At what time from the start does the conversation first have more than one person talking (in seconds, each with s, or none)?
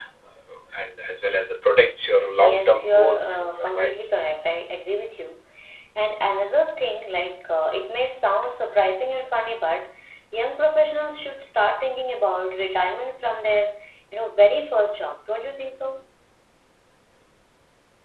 2.4 s